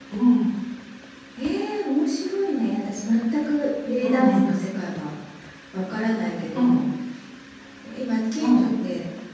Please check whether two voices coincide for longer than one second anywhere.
No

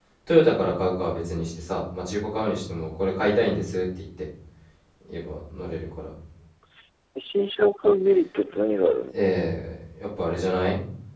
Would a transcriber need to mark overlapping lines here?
No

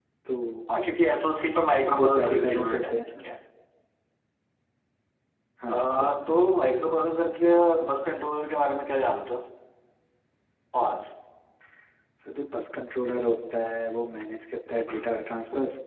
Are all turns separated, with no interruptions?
No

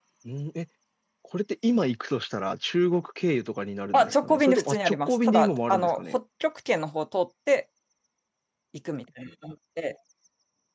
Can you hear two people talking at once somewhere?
Yes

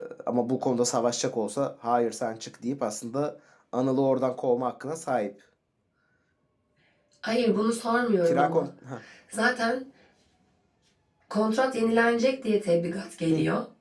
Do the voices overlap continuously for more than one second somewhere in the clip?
No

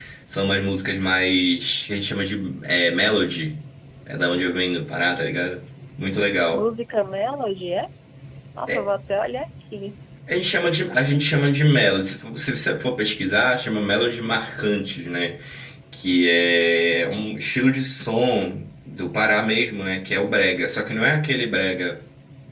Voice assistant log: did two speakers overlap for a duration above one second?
No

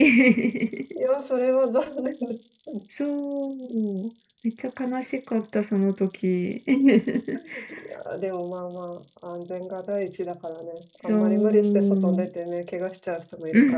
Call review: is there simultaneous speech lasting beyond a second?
Yes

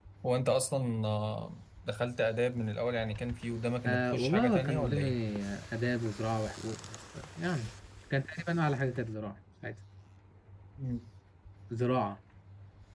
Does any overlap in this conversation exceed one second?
Yes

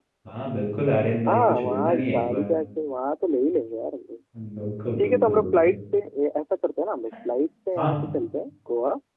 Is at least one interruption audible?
Yes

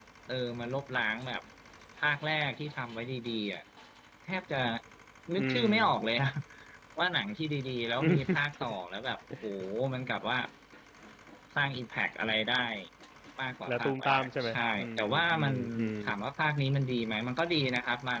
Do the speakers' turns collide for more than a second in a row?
Yes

